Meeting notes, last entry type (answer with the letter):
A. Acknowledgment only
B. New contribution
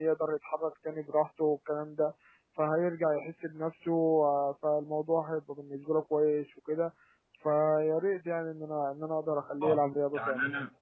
B